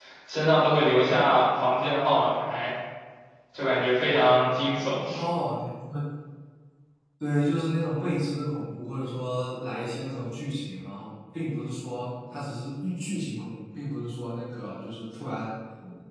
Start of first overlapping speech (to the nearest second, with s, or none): none